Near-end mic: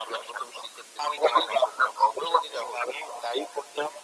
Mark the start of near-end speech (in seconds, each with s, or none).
none